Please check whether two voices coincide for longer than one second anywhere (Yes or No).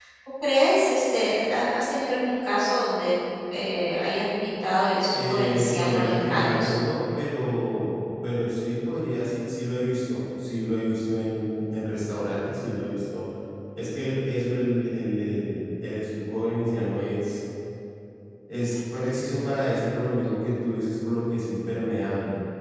Yes